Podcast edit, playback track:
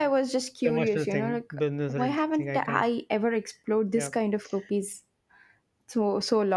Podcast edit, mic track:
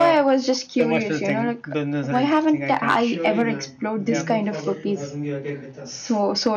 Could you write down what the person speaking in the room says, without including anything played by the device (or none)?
surely, ma'am. We look forward to having you again with us.